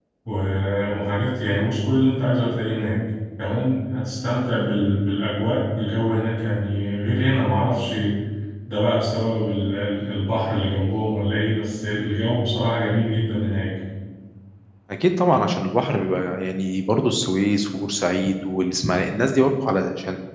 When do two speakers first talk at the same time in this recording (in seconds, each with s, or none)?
none